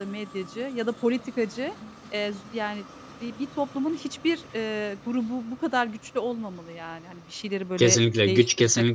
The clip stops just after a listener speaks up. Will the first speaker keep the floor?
No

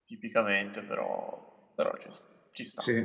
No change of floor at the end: No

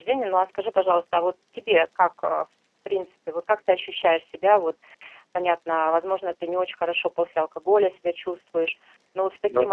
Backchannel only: Yes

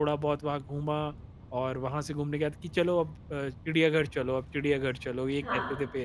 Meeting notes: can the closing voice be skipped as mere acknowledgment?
No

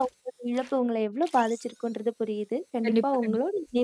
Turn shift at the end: No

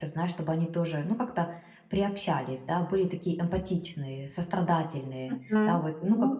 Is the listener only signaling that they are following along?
No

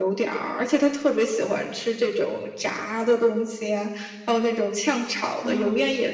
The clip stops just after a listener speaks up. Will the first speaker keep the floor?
Yes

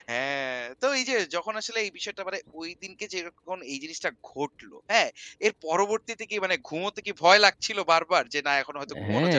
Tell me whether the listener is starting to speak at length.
Yes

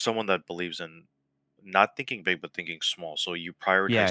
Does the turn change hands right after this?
No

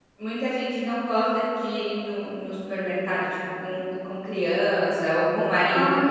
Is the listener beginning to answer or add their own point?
No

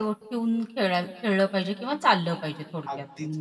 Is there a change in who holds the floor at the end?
Yes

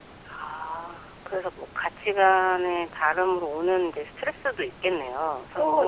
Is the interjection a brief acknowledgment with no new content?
No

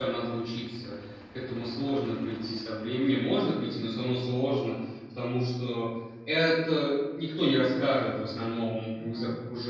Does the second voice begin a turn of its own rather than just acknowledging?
No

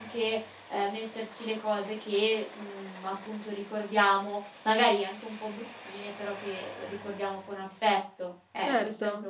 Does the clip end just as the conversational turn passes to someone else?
Yes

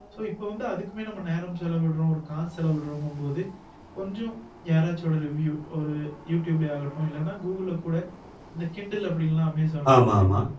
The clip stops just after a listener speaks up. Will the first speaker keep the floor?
Yes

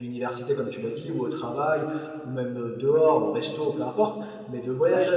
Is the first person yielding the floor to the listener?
No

